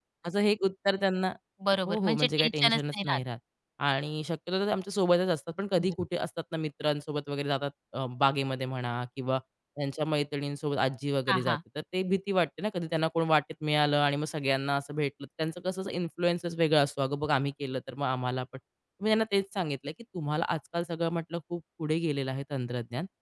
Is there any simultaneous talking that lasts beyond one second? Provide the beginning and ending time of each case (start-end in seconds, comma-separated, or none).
1.9-3.2